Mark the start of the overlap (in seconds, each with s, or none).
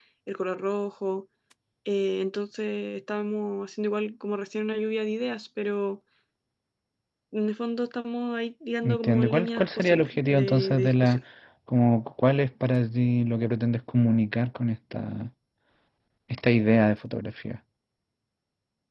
8.8 s